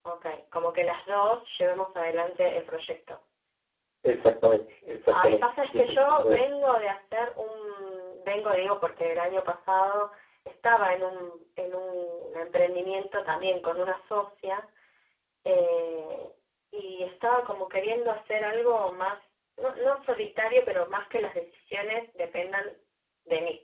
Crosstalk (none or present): present